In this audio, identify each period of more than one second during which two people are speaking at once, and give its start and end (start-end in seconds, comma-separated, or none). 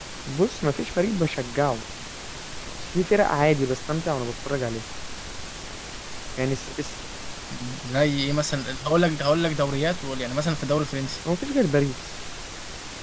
none